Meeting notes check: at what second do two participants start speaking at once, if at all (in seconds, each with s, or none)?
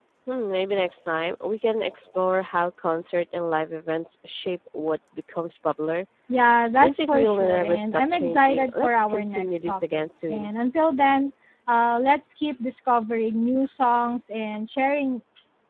6.8 s